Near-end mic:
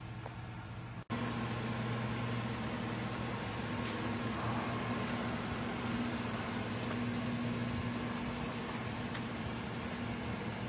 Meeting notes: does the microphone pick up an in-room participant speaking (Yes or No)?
No